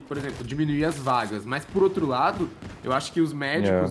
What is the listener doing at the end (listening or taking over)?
listening